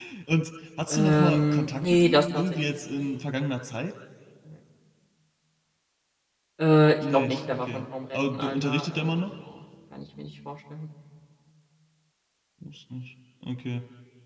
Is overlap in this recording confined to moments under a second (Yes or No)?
No